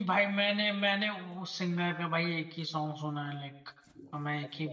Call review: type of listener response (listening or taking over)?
taking over